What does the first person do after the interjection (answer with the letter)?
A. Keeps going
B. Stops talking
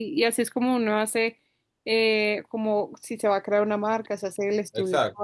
A